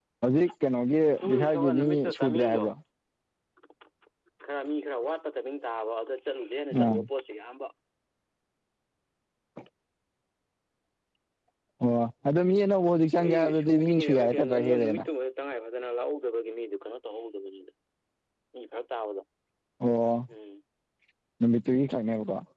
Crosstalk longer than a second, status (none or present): present